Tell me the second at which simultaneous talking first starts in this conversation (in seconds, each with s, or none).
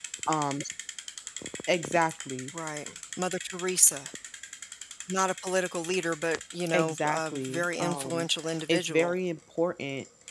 6.7 s